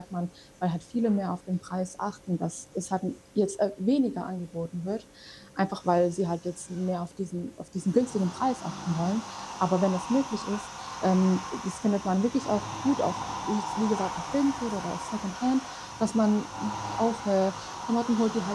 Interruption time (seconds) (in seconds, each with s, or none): none